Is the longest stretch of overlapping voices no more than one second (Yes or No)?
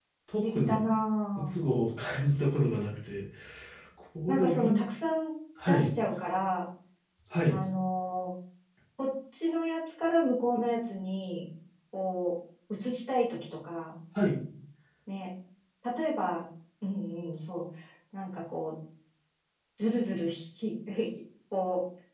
Yes